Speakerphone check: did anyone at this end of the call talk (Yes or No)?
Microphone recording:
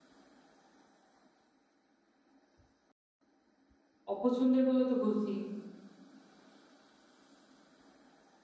Yes